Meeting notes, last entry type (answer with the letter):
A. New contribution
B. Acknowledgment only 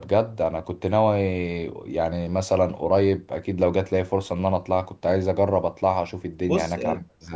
A